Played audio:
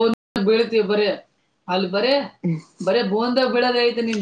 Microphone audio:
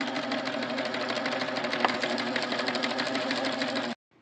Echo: none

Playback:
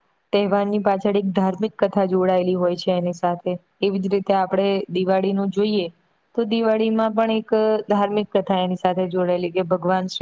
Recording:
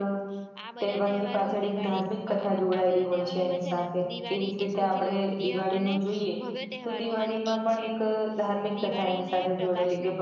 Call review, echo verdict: present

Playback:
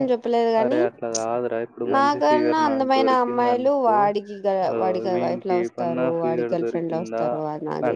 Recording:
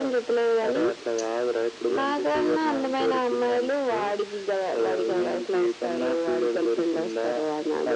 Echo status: present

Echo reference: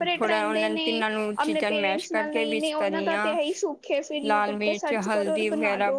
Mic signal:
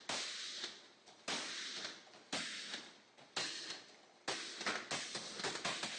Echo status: none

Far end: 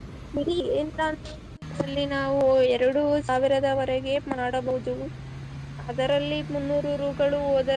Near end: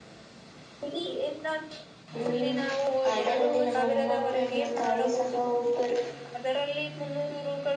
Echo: present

